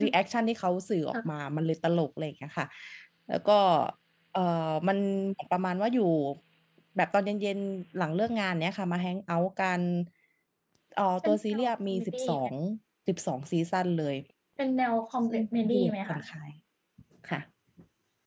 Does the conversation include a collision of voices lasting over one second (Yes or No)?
Yes